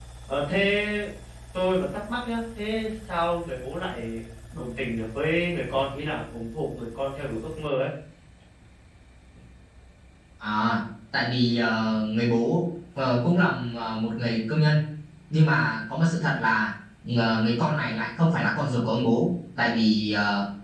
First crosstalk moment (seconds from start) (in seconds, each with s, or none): none